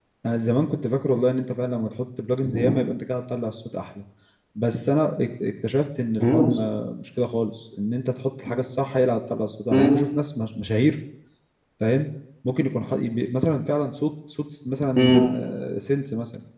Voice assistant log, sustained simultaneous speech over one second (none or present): none